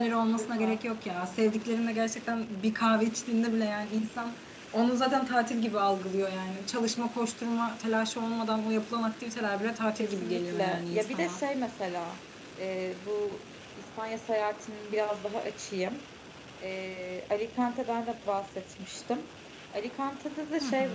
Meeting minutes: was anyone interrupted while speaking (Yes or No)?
Yes